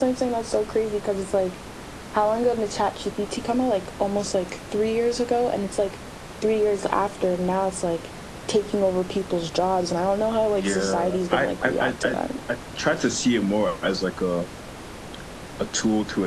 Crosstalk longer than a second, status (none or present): present